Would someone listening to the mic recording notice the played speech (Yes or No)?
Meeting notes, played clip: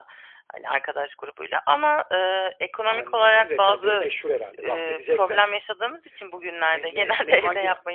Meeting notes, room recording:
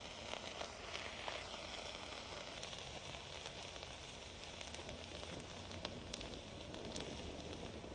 No